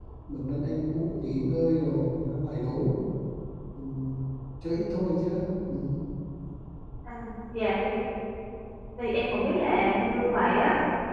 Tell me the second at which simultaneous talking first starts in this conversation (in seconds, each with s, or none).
none